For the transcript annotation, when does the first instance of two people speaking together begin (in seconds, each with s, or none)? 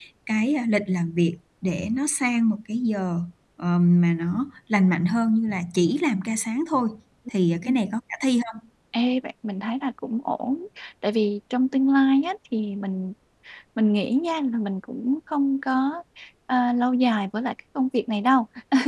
none